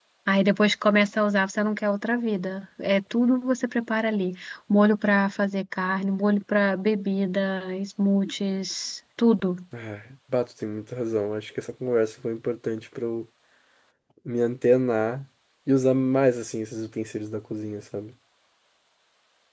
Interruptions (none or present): none